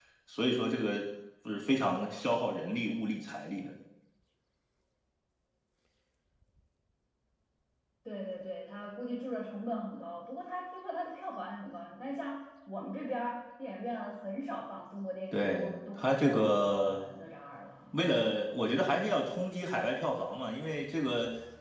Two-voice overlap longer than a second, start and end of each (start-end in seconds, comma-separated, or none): 15.3-17.0